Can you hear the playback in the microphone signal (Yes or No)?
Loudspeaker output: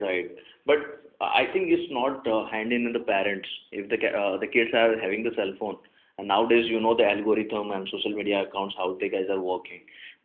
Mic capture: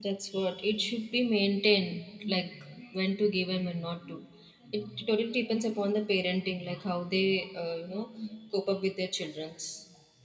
No